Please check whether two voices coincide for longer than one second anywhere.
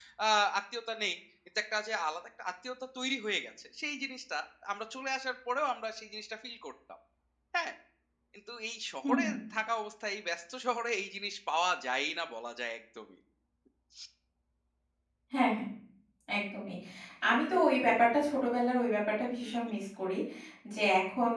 No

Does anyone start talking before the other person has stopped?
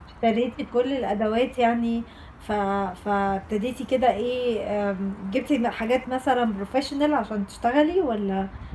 No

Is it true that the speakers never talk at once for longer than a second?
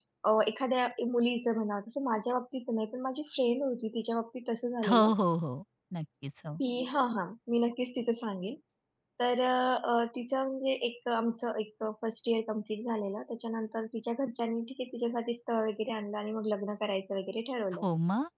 Yes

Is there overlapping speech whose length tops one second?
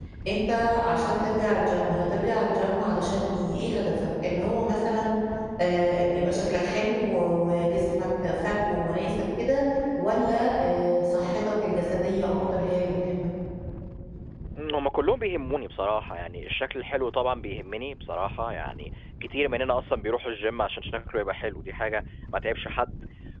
No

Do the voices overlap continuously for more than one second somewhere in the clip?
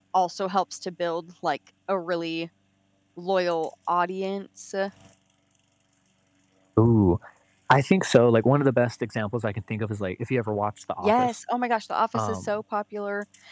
No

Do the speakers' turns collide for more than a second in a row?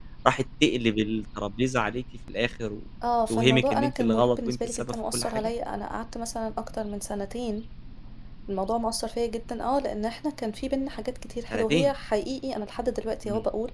Yes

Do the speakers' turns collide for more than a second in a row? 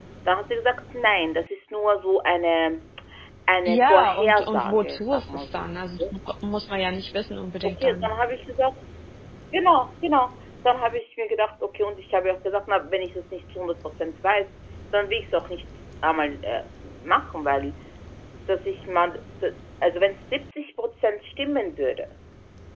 Yes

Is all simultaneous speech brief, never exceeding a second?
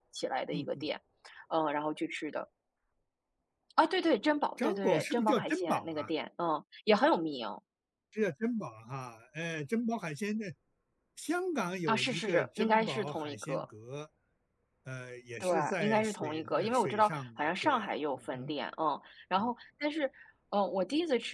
No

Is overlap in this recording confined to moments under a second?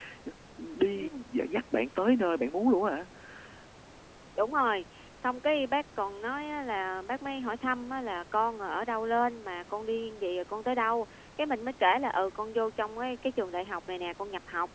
Yes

